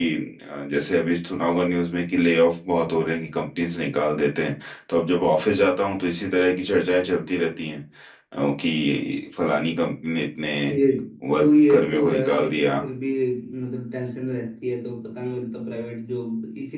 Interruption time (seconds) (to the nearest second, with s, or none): 11 s